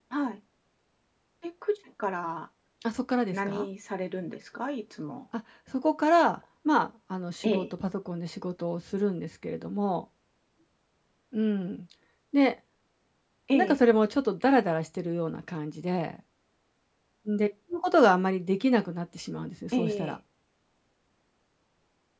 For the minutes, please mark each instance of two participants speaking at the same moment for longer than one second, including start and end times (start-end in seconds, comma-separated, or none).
none